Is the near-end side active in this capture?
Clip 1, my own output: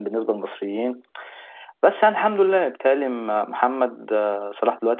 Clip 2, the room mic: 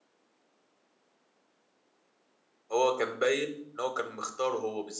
Yes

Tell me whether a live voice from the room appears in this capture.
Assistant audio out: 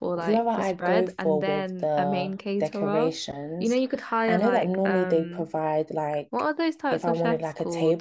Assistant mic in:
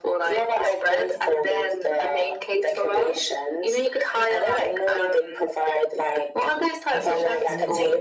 Yes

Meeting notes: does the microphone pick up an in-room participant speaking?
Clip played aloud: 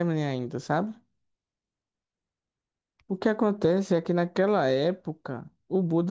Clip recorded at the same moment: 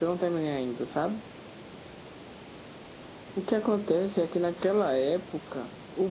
No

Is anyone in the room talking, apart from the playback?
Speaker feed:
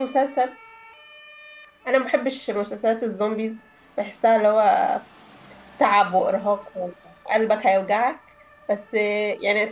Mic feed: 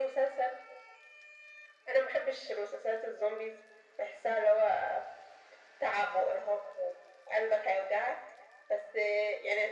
No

